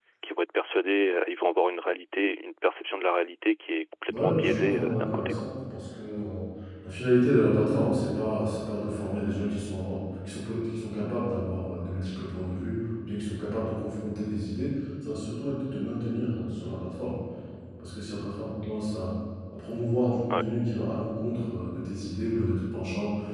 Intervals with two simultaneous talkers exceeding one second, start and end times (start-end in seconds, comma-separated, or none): 4.1-5.4